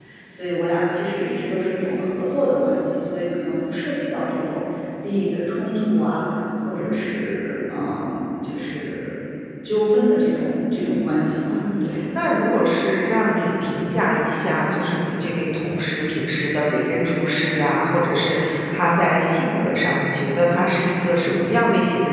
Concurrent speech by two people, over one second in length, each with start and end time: none

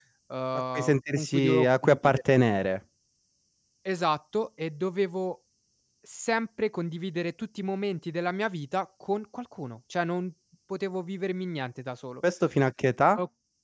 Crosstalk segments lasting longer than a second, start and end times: 0.8-2.2

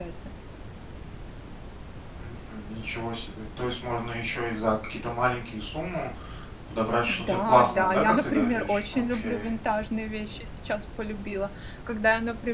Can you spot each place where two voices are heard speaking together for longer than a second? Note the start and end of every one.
7.1-9.5

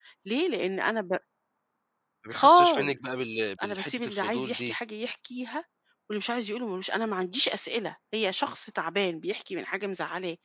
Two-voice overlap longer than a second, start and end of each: 2.3-4.8

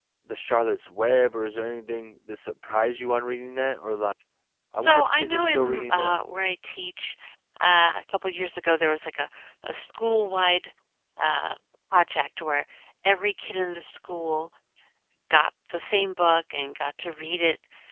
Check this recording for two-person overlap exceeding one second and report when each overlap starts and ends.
4.7-6.2

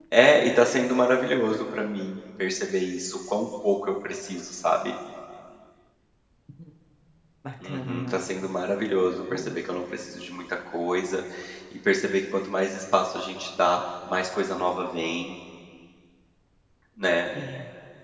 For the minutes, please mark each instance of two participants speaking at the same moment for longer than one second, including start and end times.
none

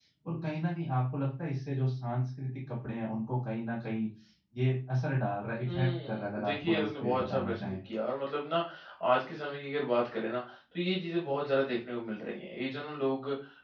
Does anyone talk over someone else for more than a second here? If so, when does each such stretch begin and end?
5.7-7.8

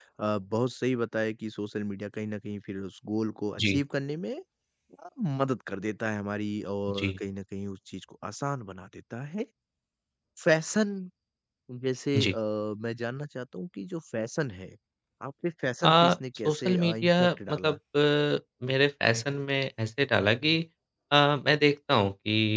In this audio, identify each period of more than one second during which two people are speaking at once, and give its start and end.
16.4-17.8

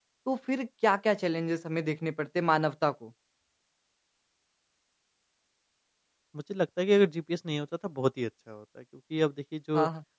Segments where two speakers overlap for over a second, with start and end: none

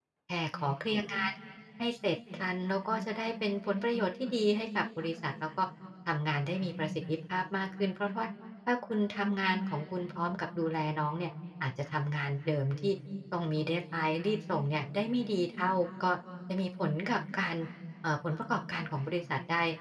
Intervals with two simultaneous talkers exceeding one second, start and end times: none

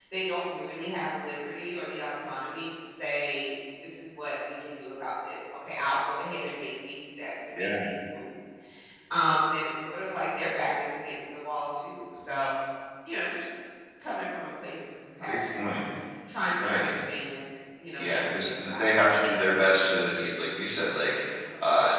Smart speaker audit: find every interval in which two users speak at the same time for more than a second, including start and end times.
18.0-19.2

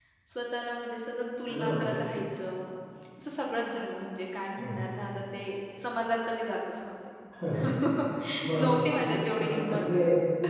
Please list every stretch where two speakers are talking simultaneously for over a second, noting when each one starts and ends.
8.6-9.8

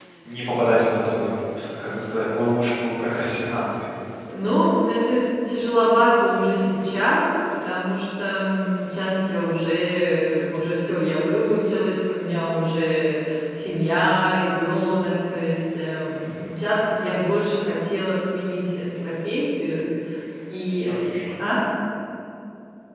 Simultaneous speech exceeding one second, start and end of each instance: none

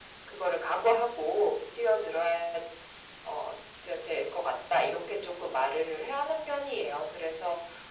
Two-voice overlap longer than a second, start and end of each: none

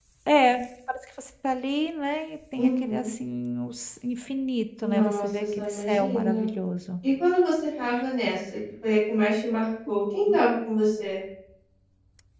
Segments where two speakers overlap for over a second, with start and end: 4.8-6.5

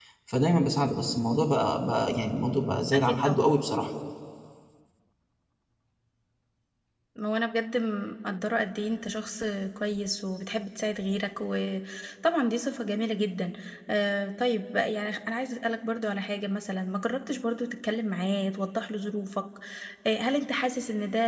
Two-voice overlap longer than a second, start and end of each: none

